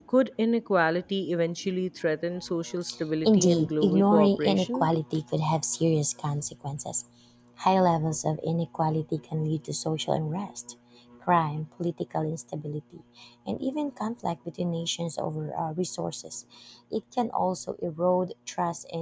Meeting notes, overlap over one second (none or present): present